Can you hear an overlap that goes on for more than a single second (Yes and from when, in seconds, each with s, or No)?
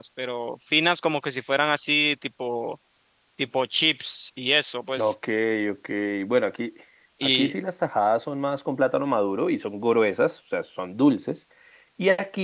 No